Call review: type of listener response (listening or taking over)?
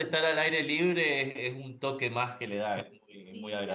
taking over